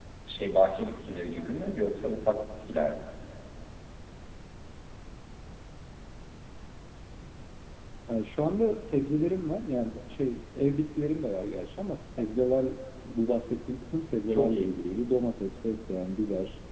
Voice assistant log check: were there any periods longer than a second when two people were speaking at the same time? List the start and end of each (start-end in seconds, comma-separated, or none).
none